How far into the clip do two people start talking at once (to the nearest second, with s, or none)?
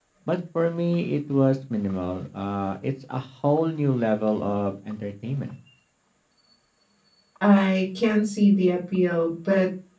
none